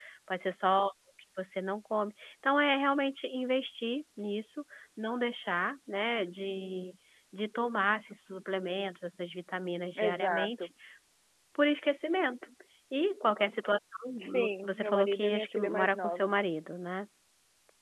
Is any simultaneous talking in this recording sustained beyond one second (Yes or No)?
Yes